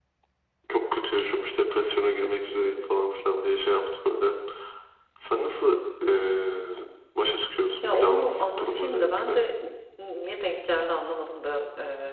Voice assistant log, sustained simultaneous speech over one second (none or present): present